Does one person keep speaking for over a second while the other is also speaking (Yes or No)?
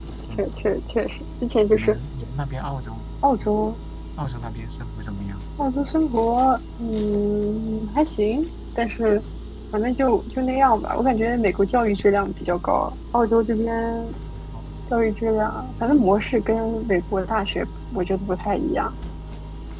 No